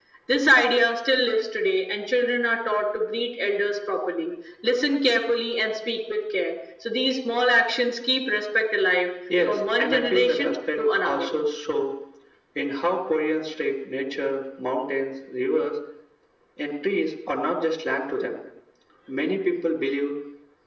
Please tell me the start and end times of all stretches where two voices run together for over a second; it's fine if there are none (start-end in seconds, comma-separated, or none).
9.5-11.3